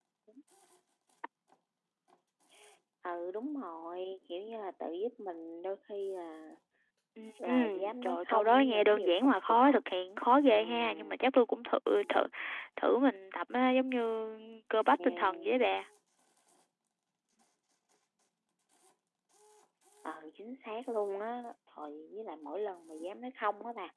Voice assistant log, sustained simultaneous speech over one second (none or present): present